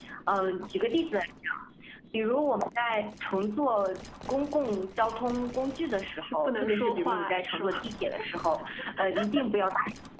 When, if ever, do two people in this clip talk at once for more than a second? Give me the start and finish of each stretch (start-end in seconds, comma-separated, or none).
6.2-7.8